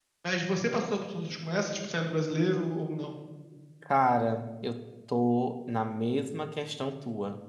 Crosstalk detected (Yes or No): No